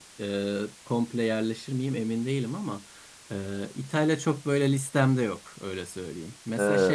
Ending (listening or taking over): listening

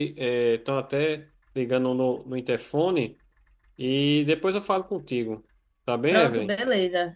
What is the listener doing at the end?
taking over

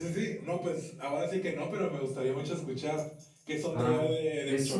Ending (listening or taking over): taking over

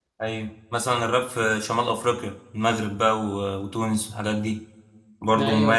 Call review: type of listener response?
taking over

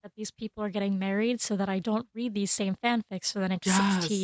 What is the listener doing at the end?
taking over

